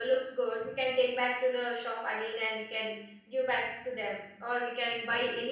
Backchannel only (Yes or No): Yes